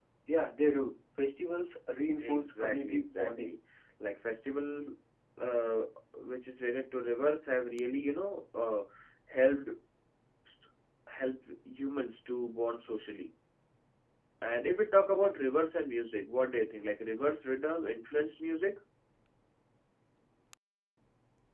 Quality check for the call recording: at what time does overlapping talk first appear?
2 s

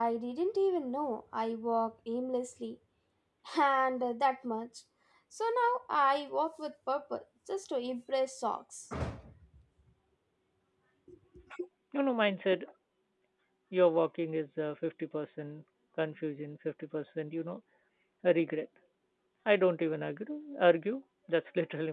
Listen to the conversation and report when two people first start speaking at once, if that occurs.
none

